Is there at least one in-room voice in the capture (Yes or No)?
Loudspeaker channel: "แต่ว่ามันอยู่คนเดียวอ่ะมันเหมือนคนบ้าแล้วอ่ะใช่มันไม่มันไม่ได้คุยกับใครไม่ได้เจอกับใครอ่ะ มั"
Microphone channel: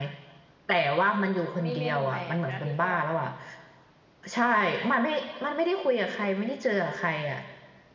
Yes